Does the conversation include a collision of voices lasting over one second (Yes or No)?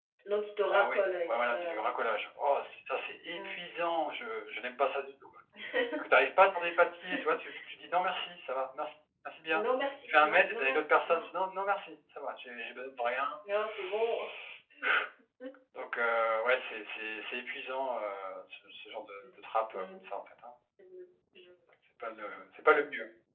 Yes